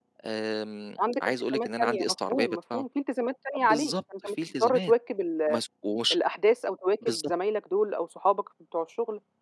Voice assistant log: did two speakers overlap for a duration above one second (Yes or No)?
Yes